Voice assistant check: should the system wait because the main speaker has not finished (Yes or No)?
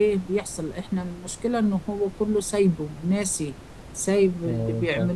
Yes